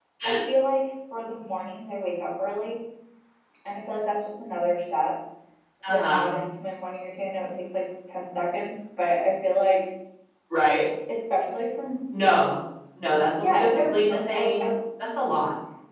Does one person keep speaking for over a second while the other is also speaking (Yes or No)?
Yes